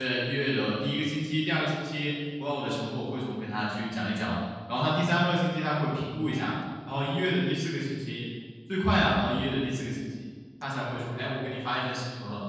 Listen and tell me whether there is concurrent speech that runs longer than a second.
No

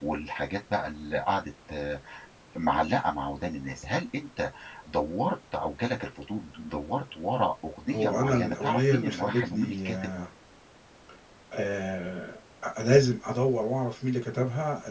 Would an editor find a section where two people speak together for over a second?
Yes, from 7.9 s

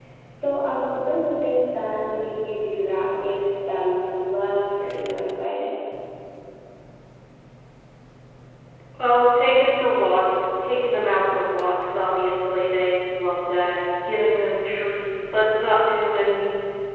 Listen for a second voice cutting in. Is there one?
No

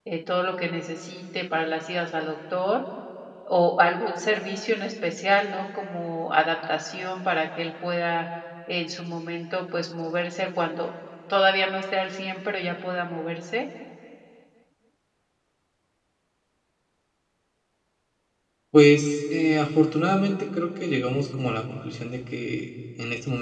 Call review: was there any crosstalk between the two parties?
No

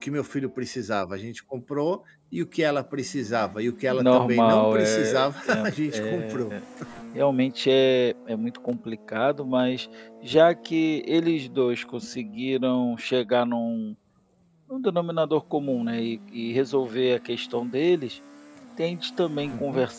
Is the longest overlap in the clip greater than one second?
Yes, from 3.9 s

